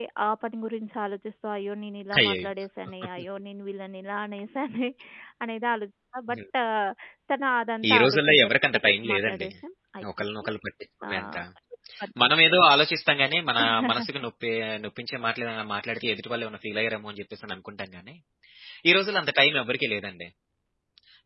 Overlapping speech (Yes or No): Yes